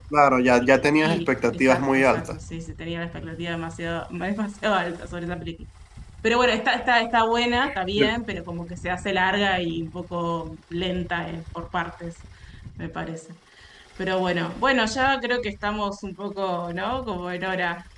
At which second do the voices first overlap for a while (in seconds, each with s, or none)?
1.0 s